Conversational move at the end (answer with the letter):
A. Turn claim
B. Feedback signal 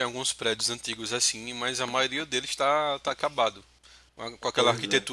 B